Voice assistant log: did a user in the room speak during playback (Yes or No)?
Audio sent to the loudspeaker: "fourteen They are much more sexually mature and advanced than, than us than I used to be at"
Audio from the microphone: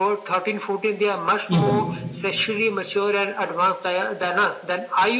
Yes